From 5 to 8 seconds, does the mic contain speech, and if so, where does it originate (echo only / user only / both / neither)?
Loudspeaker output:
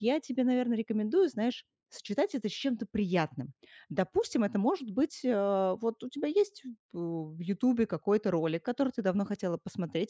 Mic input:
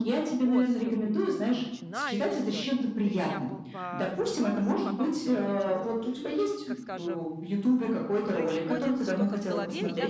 both